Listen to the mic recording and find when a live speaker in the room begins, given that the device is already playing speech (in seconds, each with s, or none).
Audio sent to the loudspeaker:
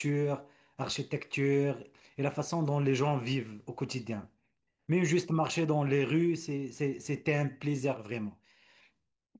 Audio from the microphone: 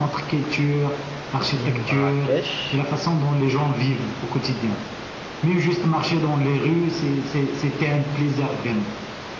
1.5 s